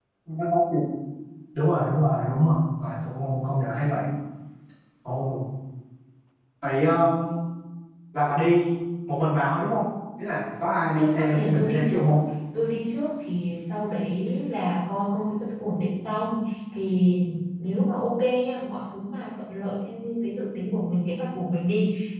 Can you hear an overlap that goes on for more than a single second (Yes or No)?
Yes